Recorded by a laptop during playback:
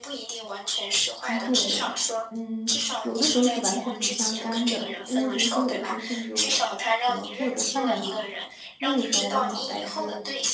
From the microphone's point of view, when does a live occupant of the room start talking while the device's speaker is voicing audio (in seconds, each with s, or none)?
1.2 s